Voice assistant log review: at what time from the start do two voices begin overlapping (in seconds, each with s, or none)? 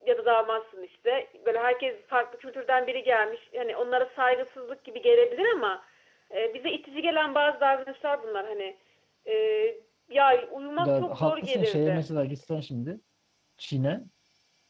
10.8 s